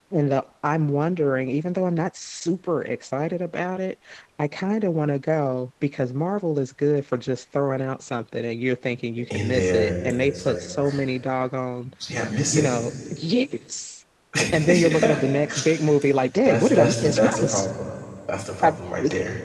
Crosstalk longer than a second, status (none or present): present